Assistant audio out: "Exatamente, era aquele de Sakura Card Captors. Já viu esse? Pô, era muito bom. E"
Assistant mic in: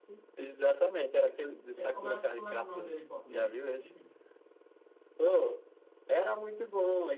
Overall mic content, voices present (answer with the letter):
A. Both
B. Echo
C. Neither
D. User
A